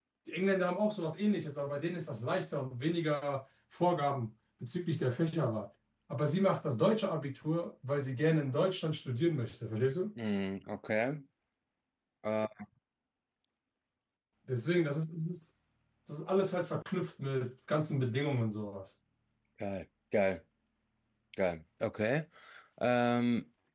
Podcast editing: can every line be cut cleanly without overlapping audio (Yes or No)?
Yes